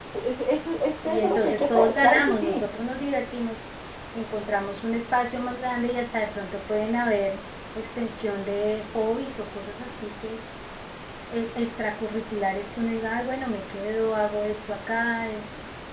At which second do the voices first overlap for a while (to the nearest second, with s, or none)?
1 s